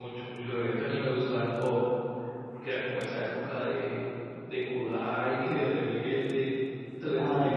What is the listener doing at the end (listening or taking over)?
listening